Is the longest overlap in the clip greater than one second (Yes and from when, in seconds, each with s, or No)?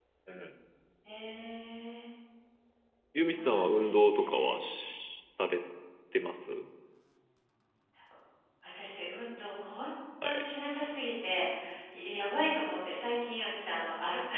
Yes, from 3.2 s